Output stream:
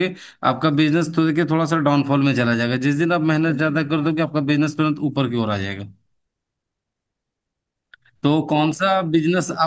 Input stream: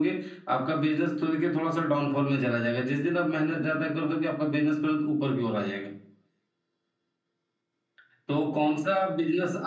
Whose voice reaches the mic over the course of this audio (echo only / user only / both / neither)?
echo only